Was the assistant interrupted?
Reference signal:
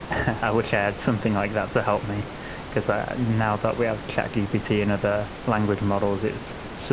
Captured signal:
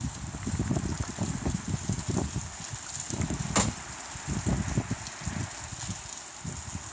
No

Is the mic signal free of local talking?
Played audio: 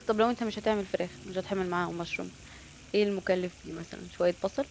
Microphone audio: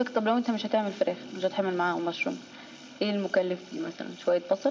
Yes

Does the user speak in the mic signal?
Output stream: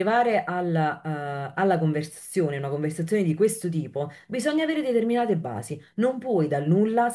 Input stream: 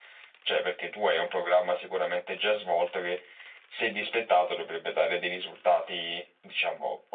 Yes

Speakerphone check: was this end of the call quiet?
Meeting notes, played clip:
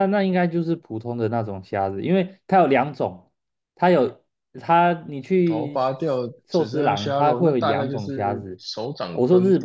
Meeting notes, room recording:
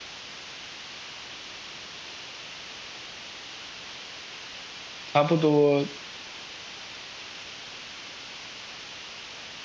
No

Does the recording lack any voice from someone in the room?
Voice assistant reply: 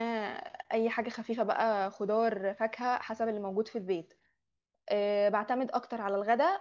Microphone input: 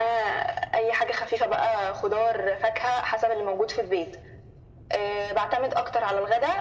Yes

